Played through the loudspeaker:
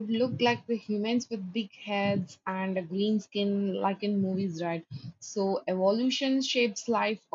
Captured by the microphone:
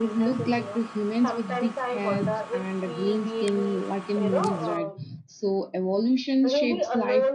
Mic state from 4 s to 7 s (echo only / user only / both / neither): both